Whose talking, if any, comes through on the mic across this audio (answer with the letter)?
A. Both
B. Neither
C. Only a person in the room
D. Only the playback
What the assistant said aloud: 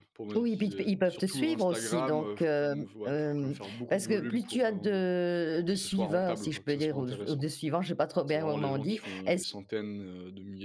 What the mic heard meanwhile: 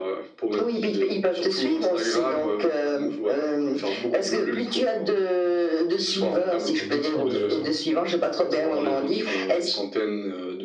A